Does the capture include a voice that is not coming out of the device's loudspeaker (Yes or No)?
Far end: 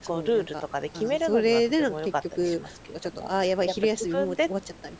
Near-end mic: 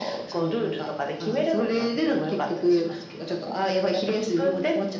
No